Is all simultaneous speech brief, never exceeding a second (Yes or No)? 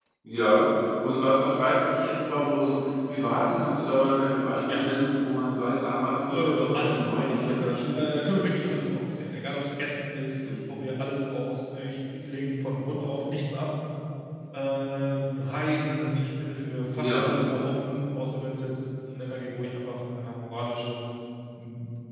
No